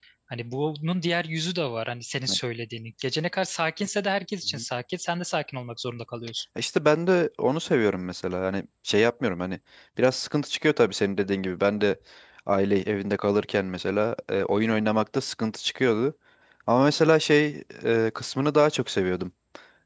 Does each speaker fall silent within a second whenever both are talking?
Yes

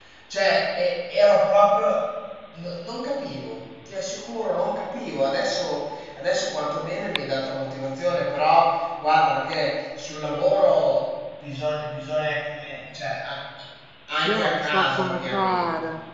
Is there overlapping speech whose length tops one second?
Yes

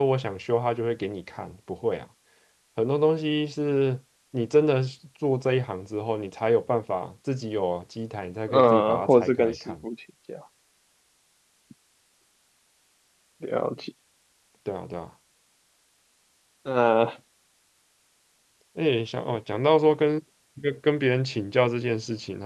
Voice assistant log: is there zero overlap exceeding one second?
No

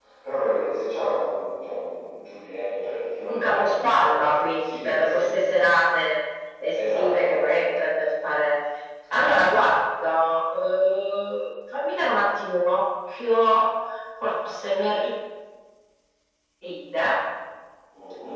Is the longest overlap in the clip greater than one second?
Yes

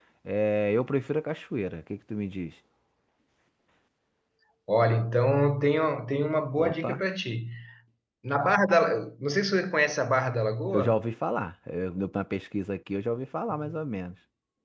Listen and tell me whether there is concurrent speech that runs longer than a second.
No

